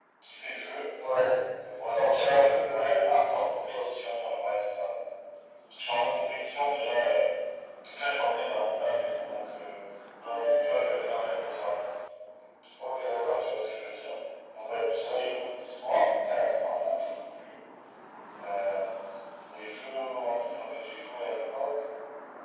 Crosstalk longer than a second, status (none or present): present